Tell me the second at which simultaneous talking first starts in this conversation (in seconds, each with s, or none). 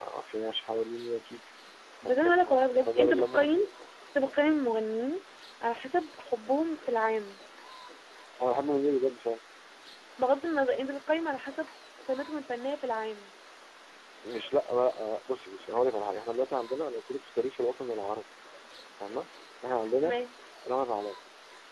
2.0 s